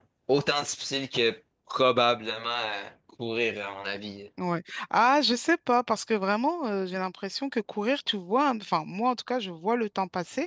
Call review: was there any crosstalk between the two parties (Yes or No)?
No